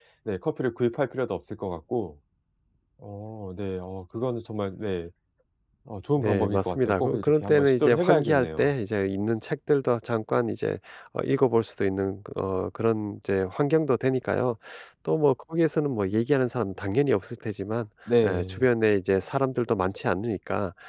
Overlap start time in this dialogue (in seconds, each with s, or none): 6.2 s